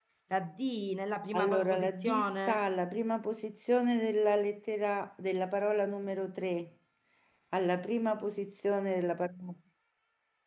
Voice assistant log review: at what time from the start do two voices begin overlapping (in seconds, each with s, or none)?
1.3 s